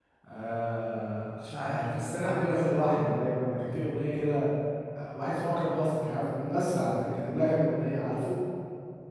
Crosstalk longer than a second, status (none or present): present